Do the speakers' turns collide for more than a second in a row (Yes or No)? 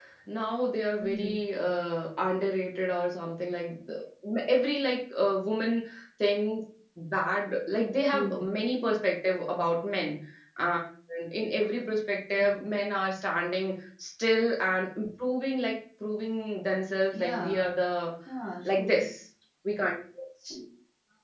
No